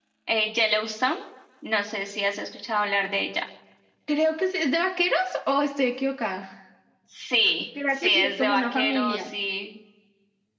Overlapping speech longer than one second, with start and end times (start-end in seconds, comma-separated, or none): 7.9-9.3